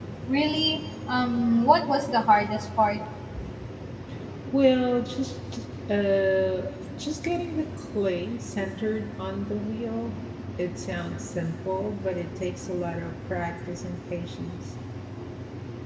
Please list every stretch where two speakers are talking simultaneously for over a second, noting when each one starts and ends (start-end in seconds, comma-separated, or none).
none